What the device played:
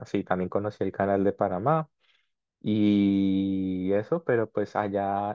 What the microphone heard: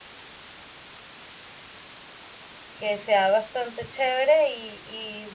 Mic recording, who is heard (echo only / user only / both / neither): user only